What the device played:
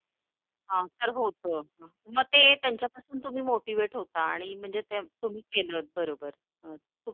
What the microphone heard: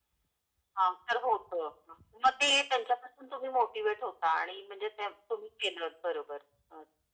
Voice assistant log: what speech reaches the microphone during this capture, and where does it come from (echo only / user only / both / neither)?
echo only